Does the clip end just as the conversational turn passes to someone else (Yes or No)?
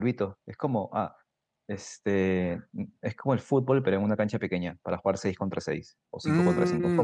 Yes